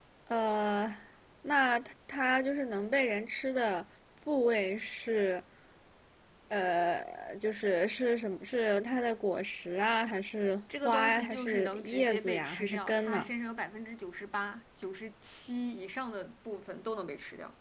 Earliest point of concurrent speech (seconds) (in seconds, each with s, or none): 10.7 s